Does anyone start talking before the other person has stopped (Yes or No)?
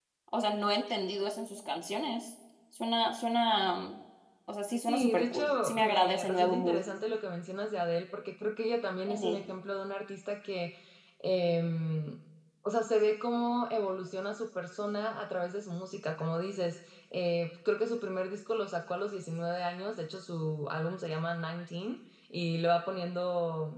Yes